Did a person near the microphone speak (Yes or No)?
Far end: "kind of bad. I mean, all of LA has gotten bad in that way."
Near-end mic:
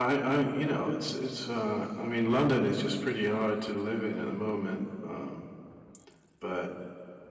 Yes